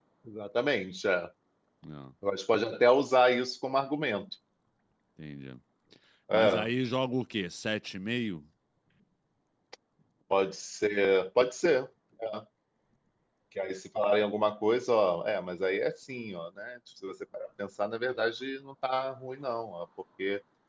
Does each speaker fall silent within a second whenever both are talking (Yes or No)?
Yes